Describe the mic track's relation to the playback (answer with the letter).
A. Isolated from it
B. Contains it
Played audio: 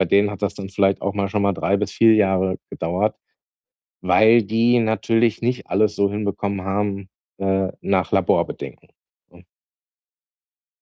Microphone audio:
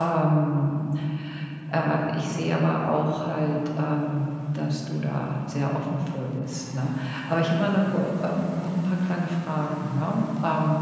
A